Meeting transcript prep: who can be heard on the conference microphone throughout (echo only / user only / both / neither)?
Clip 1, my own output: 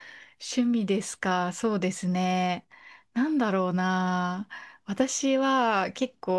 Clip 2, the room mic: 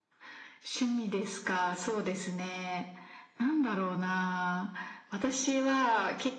echo only